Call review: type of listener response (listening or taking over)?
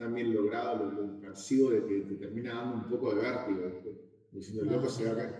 listening